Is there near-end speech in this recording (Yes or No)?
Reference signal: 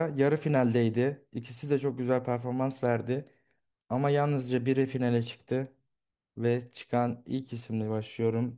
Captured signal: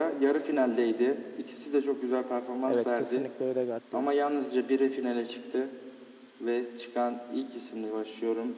Yes